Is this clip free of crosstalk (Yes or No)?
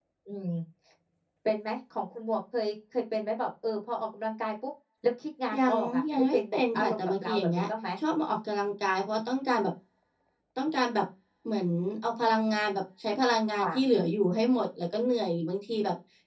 No